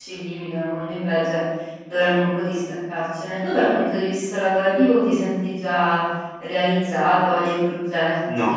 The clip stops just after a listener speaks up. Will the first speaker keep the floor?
No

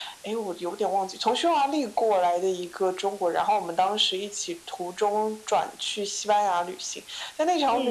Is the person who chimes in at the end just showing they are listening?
Yes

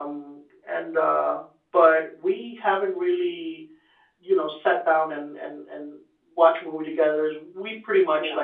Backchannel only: Yes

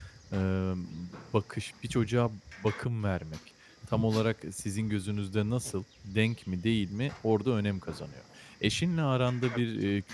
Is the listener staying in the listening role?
Yes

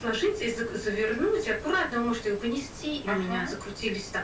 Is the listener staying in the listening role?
Yes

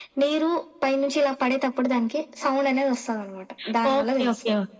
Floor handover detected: Yes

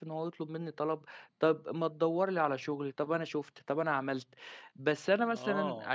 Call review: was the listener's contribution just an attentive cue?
No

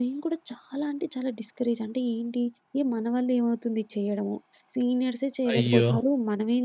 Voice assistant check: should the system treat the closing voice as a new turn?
No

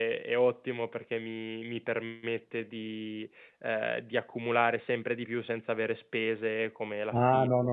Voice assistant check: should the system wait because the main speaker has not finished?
No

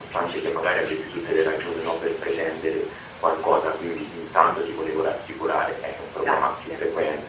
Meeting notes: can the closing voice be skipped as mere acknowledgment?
Yes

